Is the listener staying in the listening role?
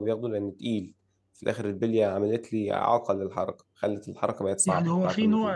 No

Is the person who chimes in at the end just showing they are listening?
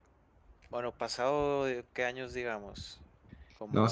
No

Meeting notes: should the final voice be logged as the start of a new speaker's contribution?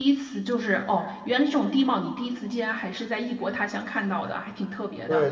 Yes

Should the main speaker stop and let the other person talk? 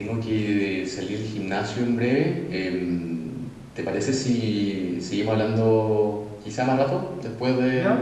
Yes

